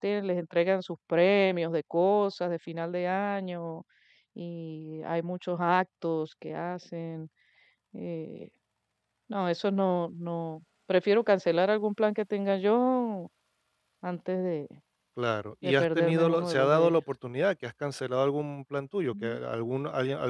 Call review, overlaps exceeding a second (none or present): present